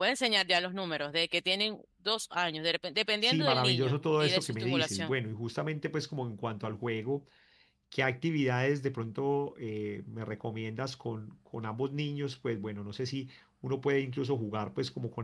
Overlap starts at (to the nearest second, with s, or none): 3 s